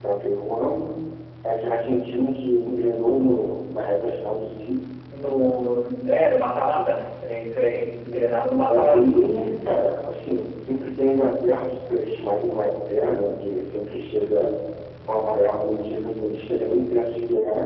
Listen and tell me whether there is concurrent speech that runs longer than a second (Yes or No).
No